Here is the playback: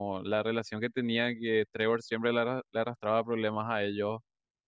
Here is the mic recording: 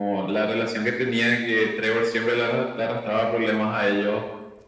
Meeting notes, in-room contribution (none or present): none